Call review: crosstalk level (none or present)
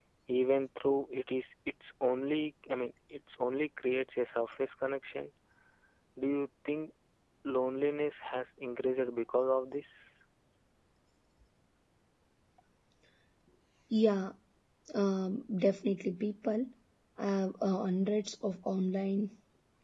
none